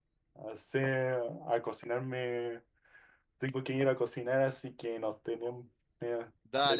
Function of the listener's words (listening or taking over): taking over